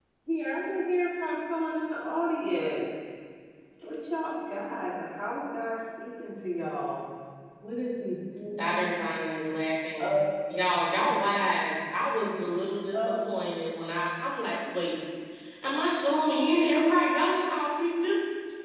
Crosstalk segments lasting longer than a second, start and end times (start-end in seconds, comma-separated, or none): none